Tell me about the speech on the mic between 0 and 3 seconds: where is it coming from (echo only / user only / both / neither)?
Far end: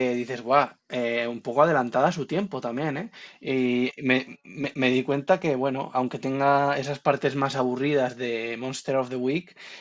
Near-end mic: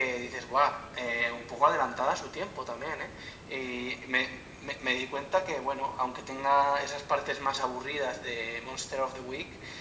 echo only